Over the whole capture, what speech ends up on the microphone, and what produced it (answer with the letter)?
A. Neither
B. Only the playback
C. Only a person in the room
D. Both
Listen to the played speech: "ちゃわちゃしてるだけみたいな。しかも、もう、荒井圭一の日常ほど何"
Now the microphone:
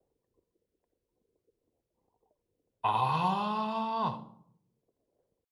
C